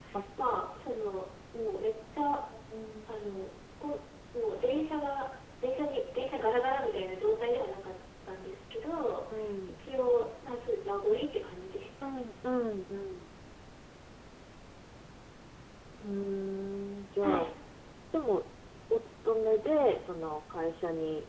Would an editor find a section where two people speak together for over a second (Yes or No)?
No